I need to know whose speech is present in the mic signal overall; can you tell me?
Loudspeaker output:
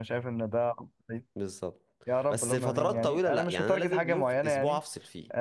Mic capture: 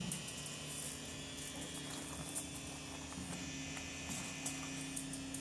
neither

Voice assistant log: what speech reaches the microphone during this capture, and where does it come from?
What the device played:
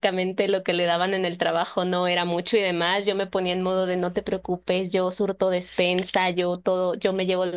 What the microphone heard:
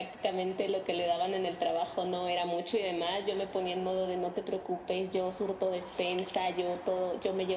echo only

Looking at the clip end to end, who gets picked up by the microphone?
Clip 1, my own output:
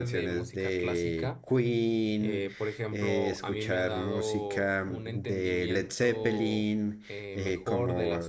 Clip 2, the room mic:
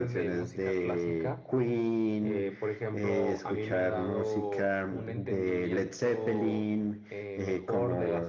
echo only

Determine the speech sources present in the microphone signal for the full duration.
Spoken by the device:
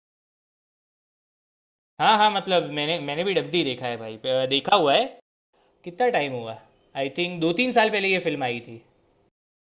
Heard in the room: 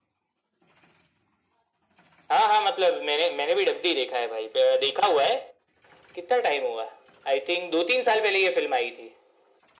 echo only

